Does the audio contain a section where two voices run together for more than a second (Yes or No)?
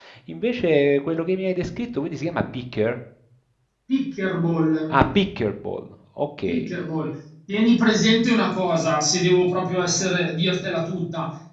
No